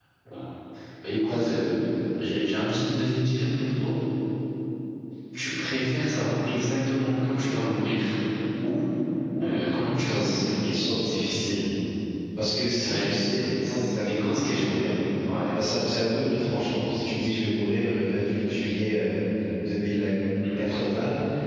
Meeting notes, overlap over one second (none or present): present